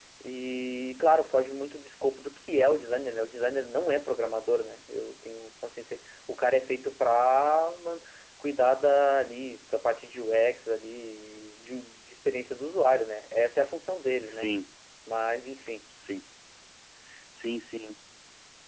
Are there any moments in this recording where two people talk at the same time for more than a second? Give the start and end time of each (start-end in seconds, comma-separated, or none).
none